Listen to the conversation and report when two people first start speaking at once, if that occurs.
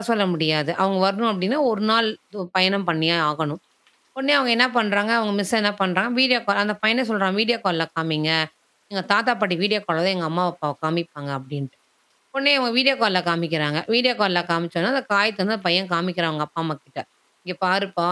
none

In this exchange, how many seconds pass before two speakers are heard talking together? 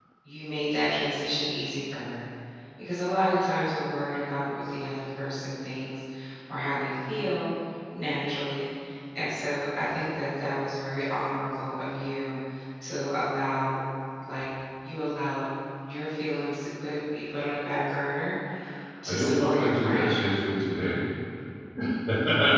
19 s

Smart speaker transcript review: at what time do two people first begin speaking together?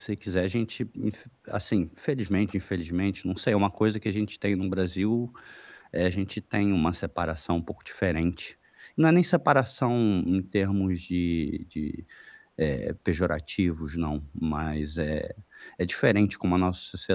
none

